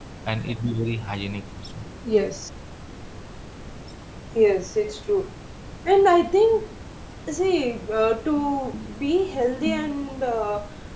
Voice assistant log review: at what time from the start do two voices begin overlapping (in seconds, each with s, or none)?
none